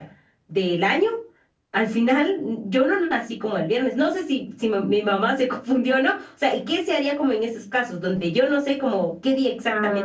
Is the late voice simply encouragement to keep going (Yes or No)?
No